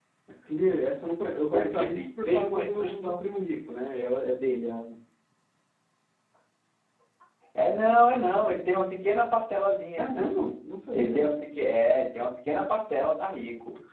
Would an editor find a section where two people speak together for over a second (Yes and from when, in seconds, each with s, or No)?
Yes, from 1.5 s